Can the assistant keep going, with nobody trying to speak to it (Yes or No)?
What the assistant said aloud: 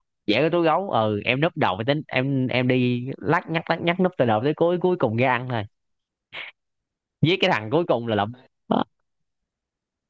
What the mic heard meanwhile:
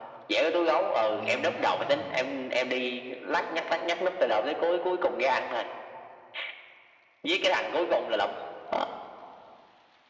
No